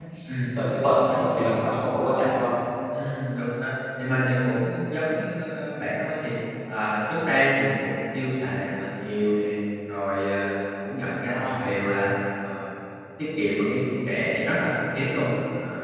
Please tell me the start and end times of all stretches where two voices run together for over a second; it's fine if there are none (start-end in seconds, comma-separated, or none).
none